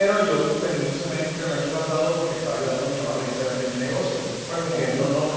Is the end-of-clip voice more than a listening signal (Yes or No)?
No